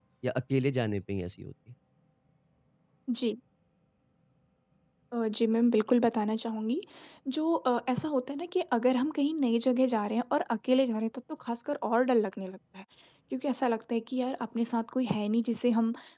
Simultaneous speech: No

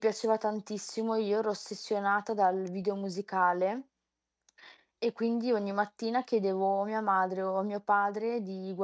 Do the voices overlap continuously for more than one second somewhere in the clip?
No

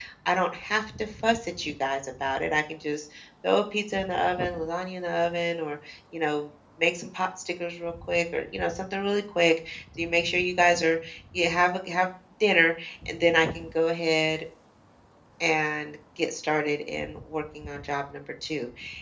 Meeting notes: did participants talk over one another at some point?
No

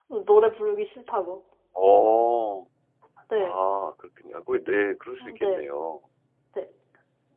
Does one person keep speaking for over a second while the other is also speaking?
No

